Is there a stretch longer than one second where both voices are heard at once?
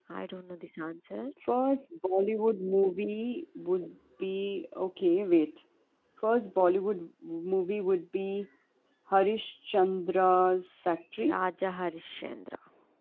No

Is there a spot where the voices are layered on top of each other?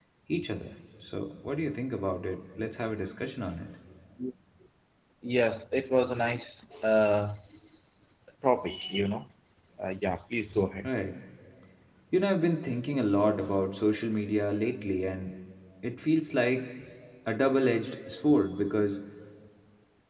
No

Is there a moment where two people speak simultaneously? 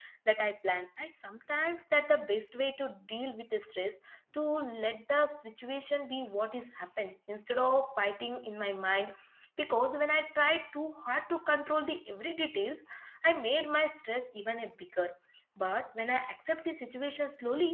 No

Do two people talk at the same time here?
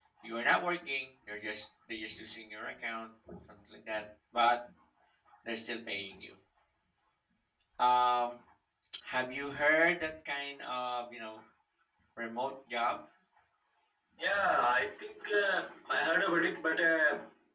No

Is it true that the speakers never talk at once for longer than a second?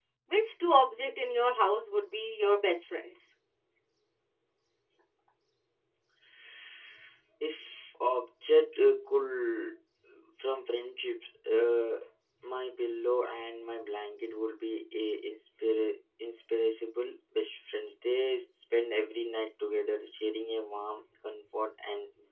Yes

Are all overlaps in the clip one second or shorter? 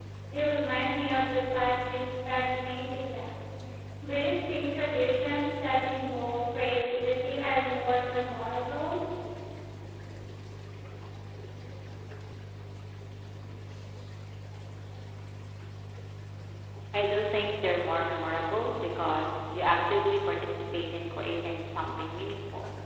Yes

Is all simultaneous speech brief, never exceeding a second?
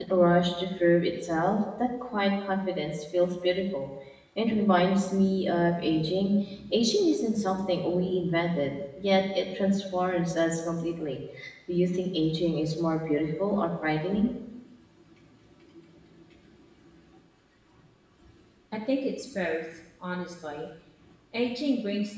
Yes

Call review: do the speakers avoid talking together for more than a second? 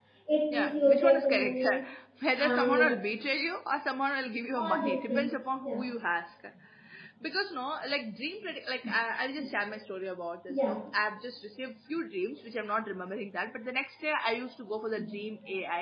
No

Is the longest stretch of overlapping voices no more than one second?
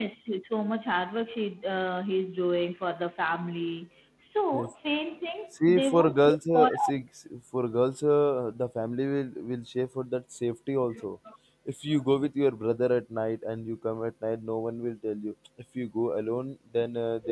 No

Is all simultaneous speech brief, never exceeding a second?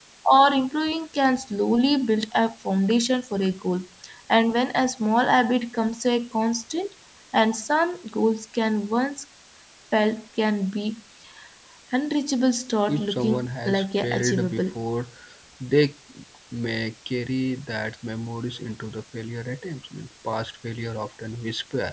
No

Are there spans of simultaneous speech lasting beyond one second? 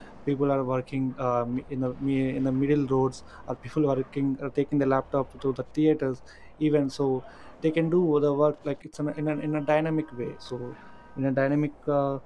No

